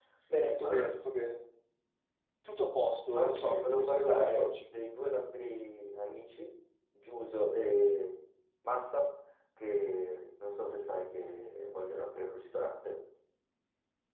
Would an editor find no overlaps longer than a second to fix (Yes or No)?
No